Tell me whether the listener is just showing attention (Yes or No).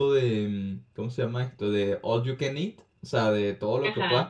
Yes